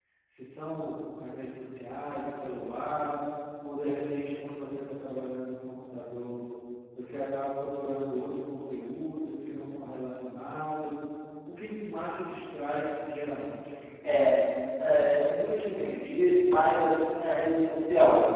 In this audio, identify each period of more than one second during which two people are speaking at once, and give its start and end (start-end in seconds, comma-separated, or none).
none